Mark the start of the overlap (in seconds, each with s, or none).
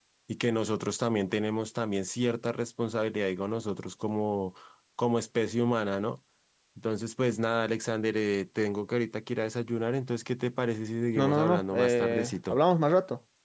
11.2 s